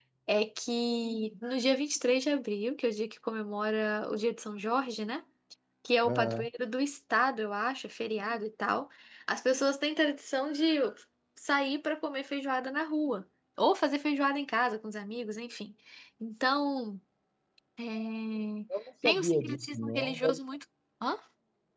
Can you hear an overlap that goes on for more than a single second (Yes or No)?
Yes